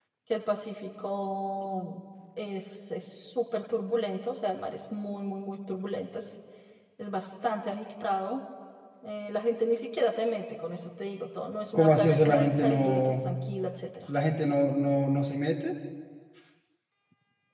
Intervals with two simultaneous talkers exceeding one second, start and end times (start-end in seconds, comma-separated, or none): 11.7-13.0